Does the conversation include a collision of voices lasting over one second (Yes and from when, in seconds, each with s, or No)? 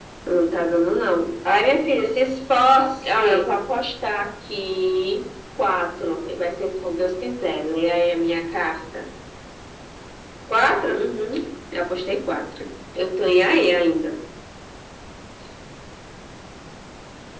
No